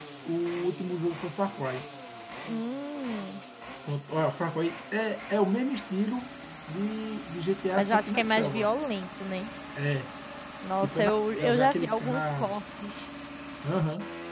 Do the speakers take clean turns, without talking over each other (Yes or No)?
No